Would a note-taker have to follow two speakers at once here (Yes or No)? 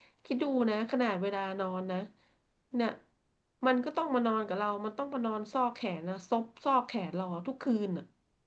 No